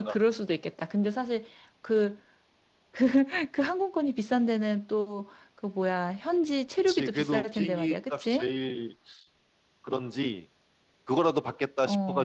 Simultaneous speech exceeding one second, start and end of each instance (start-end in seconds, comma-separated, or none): 6.9-8.5